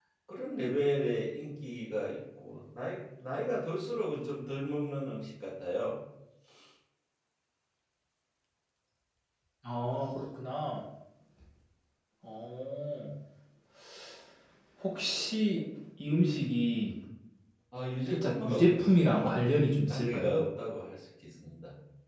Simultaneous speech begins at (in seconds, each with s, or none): 18.1 s